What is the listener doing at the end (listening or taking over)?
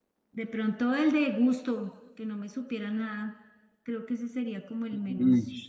taking over